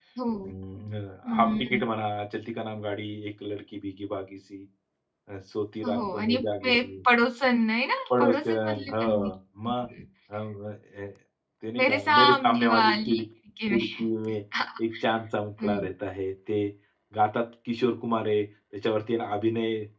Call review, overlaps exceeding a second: present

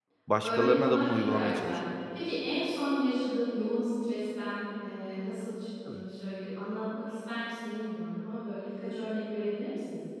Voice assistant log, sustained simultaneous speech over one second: present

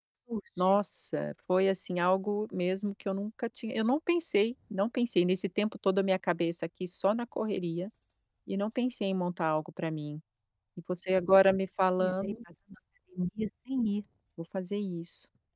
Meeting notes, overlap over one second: none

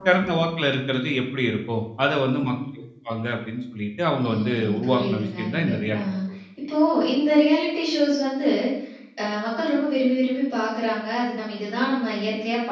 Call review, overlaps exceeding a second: present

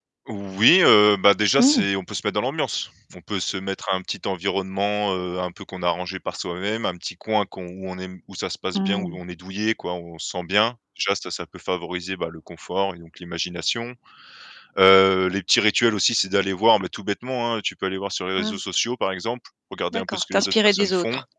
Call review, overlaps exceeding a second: present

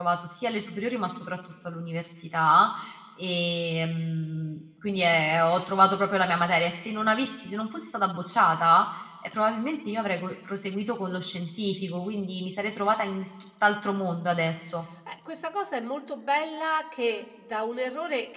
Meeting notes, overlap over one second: none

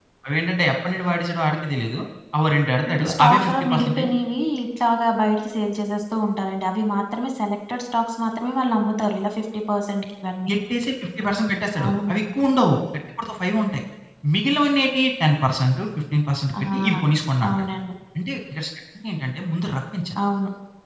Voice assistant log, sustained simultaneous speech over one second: present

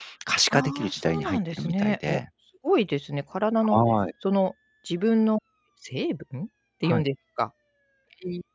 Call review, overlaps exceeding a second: present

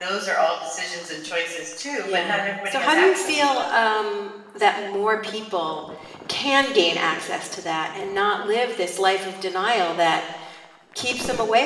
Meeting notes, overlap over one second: present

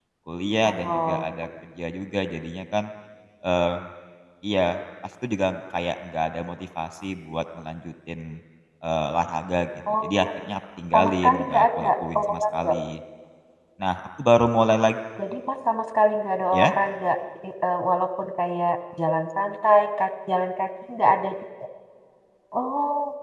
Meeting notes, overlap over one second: present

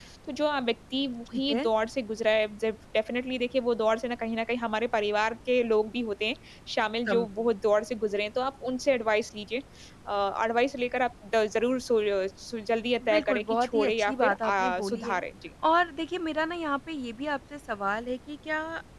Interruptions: present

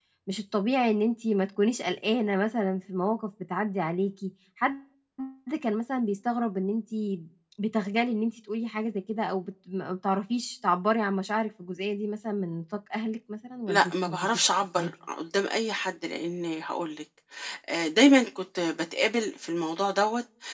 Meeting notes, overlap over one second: present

